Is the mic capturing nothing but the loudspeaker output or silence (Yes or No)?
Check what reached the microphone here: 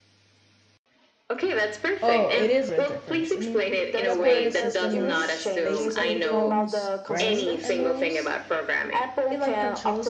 No